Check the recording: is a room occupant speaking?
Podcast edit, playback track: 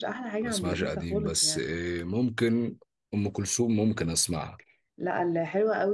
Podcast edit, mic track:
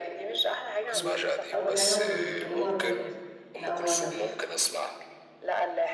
Yes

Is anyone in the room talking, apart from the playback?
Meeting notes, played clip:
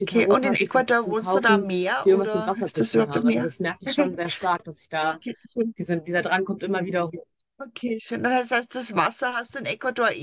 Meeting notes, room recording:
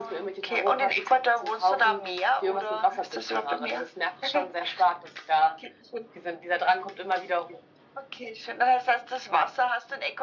No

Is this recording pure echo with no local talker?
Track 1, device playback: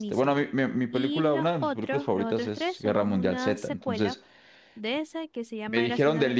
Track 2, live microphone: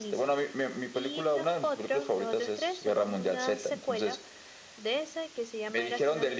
Yes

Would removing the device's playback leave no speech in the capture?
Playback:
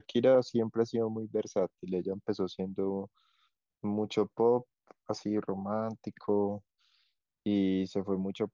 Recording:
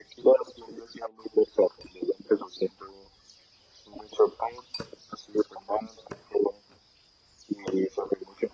Yes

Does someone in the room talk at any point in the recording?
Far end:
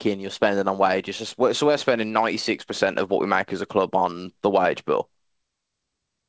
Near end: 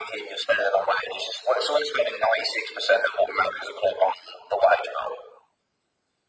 No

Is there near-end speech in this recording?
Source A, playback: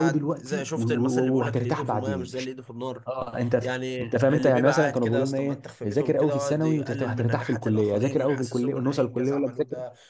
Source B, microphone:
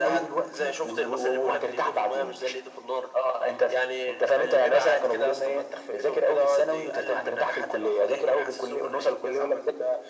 No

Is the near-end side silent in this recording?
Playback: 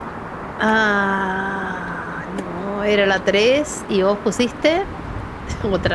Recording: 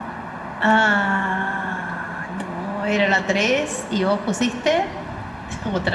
Yes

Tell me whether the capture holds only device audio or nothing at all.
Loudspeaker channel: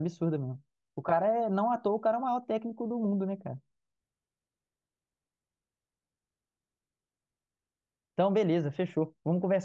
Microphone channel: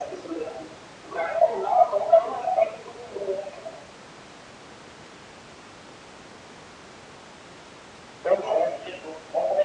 Yes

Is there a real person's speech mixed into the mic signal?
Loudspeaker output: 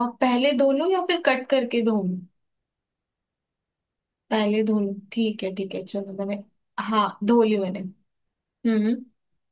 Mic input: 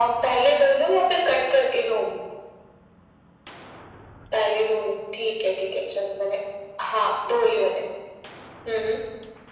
No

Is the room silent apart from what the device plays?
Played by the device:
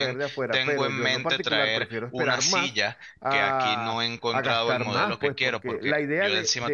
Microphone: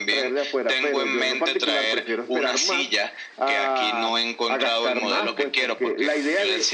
Yes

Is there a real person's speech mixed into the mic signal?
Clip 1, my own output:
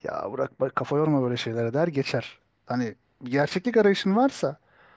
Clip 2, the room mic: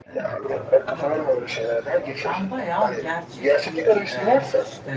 Yes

